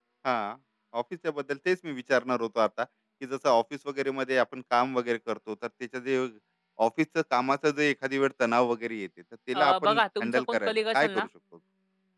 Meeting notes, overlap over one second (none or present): present